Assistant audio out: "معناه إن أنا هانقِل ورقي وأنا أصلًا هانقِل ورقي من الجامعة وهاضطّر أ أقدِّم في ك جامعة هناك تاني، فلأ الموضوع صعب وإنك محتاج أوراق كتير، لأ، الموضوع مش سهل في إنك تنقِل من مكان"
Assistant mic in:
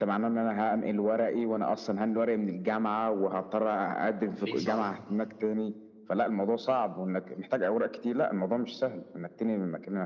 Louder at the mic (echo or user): echo